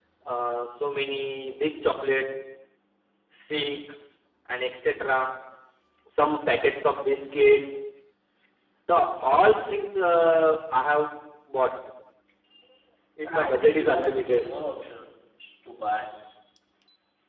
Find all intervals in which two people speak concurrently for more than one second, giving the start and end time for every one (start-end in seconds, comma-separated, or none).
13.2-14.4